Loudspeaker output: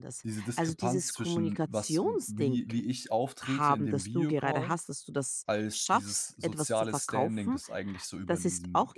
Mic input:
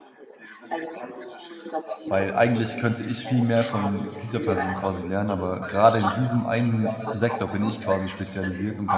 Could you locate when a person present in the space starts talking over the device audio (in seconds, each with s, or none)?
2.0 s